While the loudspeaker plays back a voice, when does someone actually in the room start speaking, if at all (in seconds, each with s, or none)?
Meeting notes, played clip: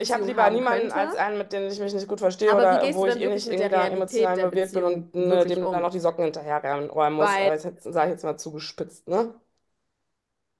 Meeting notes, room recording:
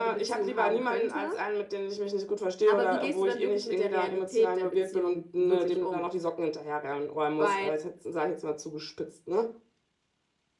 none